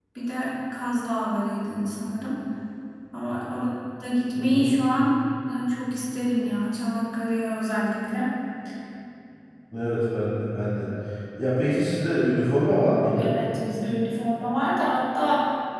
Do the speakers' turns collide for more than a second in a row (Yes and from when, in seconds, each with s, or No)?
No